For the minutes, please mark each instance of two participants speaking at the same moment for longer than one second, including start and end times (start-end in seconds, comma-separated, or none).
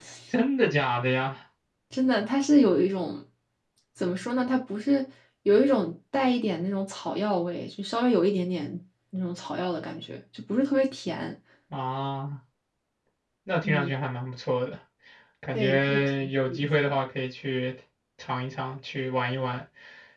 15.5-16.9